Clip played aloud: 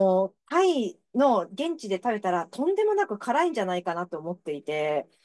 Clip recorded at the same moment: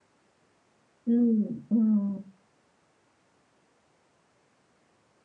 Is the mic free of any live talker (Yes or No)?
No